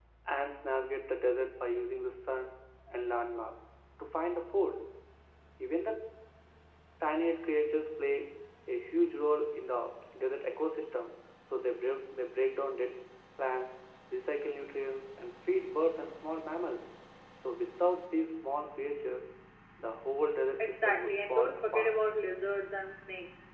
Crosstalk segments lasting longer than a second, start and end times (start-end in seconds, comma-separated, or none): 20.6-21.9